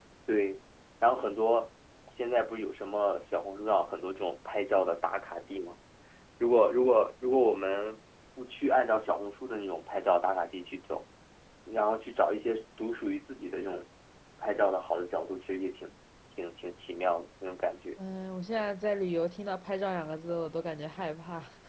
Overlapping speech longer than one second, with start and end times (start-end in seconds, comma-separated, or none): none